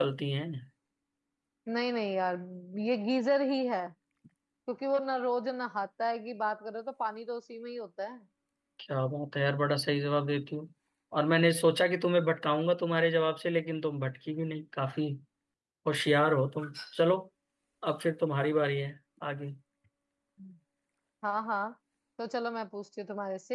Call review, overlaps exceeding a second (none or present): none